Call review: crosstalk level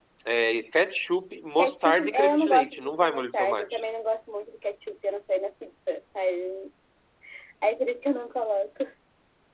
present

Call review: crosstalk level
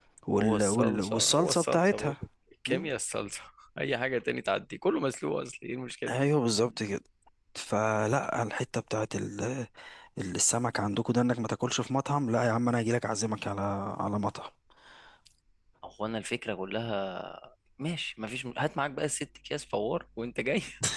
present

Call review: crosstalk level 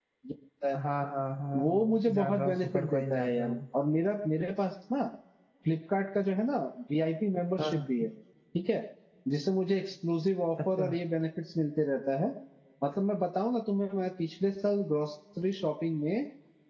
present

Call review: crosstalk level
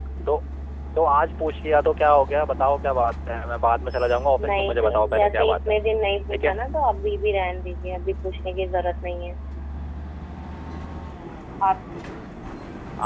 present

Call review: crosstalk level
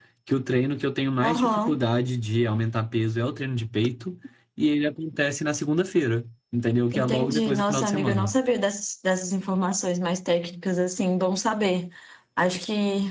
present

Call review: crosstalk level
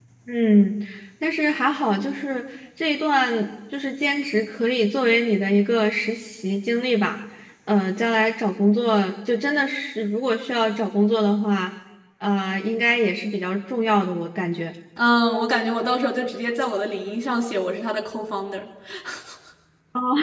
none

